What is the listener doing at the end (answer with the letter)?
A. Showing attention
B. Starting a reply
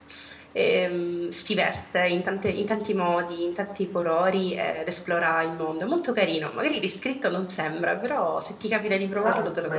B